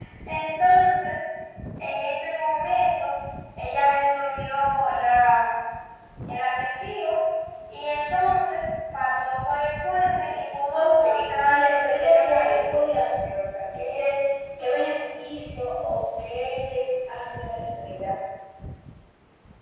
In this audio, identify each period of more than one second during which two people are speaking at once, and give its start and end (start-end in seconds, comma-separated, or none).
11.5-12.7